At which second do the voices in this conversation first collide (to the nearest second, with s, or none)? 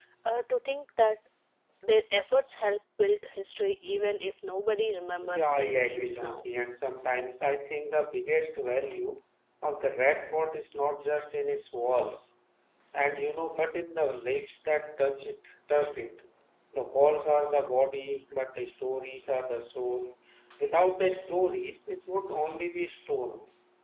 5 s